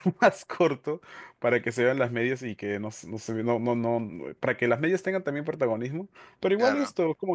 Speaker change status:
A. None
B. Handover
A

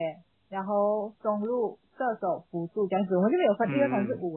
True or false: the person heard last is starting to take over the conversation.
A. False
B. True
B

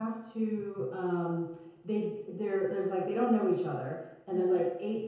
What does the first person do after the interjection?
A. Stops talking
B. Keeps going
B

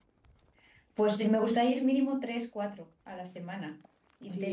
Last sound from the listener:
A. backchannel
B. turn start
B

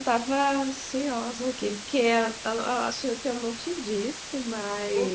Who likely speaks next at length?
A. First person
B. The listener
B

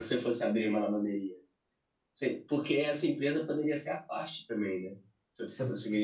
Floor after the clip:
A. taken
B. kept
B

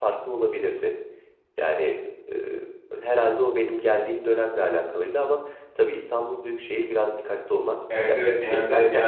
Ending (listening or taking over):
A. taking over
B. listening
A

